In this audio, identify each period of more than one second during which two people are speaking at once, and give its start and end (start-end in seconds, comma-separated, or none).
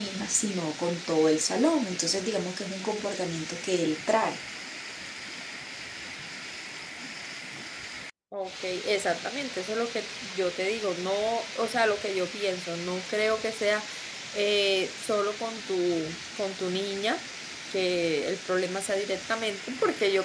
none